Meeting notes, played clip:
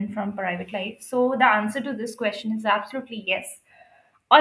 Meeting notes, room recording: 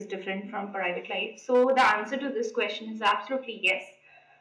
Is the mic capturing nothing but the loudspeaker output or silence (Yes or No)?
Yes